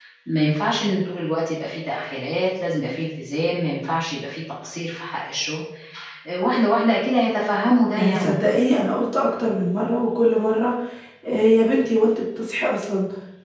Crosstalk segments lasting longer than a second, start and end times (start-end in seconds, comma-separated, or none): none